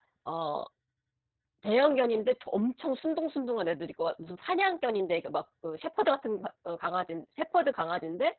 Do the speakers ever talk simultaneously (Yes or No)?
No